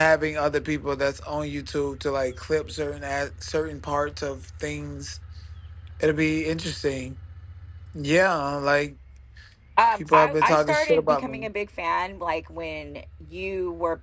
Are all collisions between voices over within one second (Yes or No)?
No